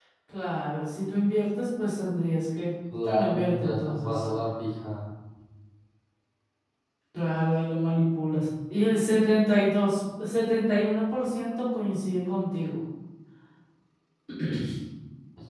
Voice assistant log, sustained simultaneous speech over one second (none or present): present